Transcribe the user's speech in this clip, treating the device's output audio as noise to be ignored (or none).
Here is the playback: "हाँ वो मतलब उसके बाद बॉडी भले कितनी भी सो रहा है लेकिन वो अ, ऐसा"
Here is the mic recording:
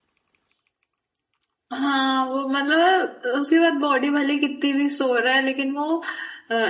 none